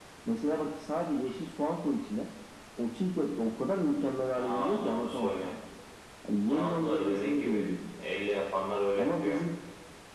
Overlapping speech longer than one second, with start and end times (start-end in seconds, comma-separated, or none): 4.4-5.6, 6.4-7.7